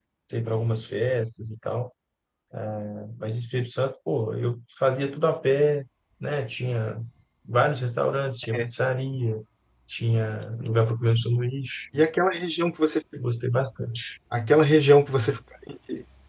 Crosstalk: none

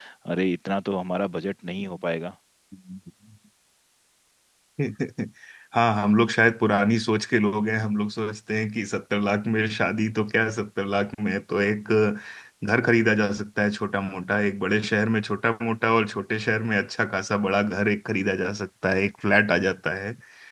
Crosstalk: none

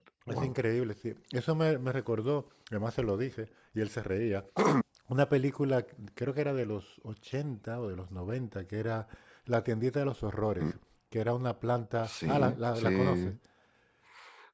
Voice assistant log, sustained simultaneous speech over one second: present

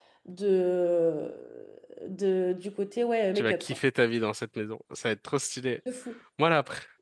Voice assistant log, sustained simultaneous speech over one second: none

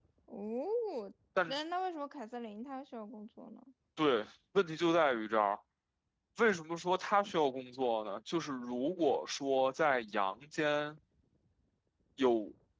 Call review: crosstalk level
none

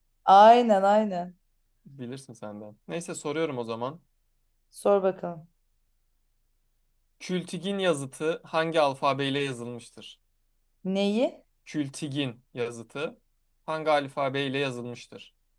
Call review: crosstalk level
none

